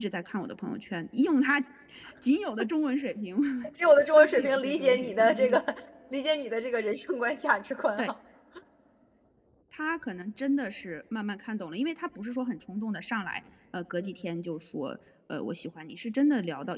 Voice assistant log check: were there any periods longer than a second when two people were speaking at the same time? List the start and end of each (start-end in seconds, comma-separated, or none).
4.2-5.6